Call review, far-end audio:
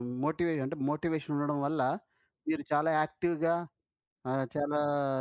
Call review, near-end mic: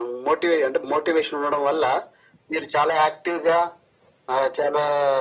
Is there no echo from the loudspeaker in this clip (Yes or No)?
No